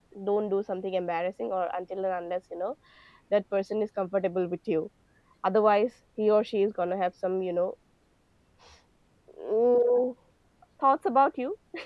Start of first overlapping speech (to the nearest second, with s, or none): none